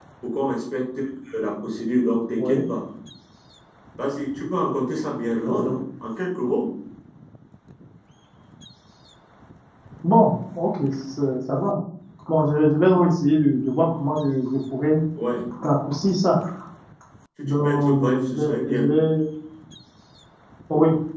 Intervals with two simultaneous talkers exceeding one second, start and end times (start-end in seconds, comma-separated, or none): 17.4-18.8